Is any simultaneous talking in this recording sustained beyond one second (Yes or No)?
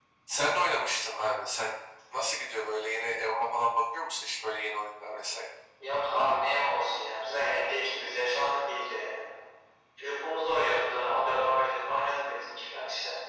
No